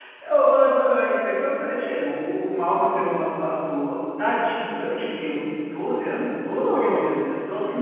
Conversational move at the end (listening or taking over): listening